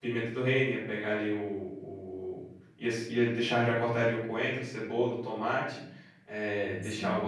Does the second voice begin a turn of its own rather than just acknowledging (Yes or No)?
No